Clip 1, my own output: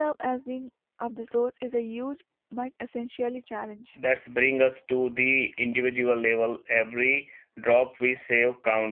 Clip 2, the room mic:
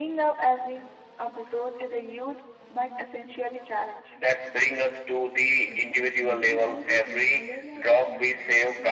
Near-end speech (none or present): present